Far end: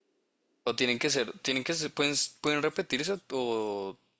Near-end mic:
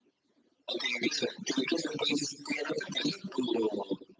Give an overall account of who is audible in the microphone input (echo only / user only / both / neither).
echo only